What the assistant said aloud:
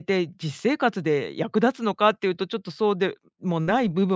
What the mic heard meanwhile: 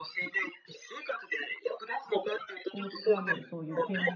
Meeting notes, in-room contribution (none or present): present